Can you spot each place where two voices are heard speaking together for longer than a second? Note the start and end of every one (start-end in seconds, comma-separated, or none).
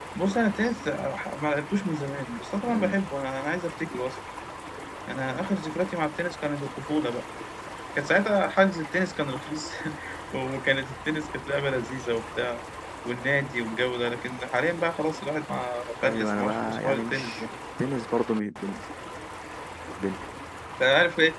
16.0-17.5